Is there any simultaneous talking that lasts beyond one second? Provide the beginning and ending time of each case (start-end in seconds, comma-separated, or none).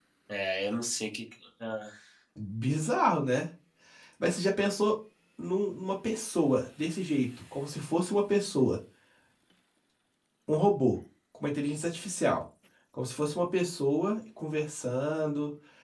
none